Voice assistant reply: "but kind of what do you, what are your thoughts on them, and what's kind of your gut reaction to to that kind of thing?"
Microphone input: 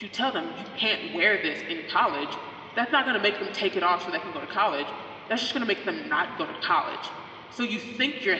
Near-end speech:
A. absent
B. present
B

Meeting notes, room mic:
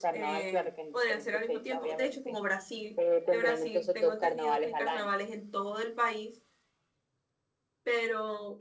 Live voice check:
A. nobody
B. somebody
B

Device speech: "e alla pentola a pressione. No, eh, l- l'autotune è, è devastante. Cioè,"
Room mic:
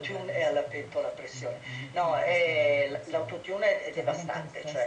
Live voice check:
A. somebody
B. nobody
A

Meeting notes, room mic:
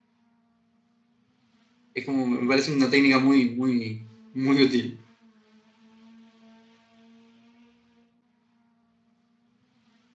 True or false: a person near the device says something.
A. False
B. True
B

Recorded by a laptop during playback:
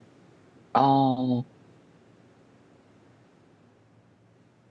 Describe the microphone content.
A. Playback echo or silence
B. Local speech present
B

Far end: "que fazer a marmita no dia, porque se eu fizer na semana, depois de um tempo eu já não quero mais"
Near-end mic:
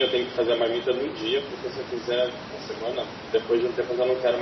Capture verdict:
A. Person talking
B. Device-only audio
B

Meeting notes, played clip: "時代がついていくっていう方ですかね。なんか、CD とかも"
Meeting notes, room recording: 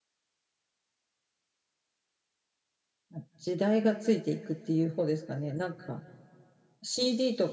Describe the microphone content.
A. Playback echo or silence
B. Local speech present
A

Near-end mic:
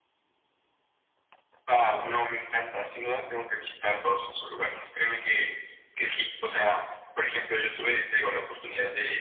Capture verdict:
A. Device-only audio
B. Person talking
A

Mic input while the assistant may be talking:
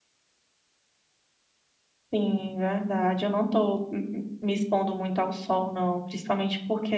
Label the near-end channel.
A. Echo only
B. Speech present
B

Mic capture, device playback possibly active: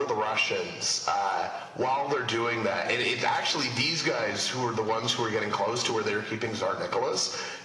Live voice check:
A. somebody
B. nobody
B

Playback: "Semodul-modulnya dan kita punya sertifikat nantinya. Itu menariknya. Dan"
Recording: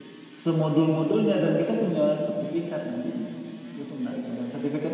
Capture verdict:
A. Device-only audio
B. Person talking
A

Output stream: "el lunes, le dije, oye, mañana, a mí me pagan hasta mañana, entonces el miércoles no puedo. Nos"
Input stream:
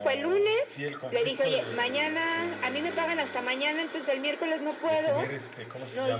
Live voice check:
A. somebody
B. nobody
A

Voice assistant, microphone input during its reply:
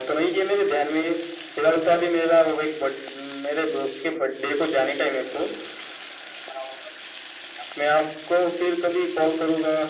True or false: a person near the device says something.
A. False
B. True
A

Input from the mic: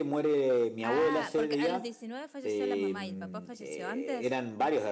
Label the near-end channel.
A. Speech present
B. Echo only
A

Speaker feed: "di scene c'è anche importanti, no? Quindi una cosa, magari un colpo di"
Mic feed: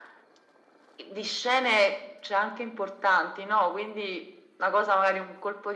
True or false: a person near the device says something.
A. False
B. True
A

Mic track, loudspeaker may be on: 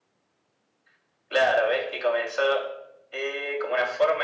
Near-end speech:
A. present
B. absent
B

